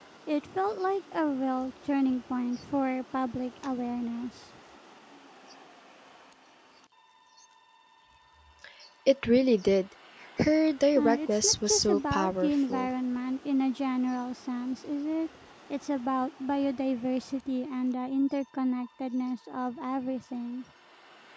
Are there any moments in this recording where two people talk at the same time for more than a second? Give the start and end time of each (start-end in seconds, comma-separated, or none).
10.9-12.9